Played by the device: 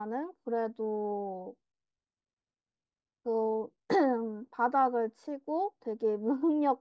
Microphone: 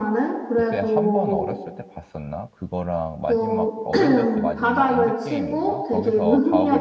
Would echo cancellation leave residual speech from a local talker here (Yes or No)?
Yes